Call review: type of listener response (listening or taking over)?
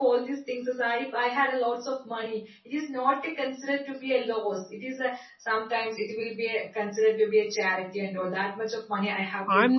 taking over